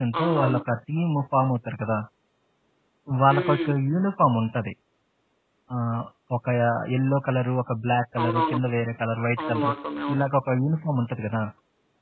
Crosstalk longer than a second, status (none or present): none